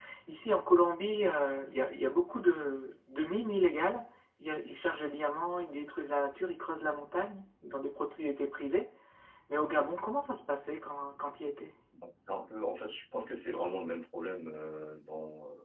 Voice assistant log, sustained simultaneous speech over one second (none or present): none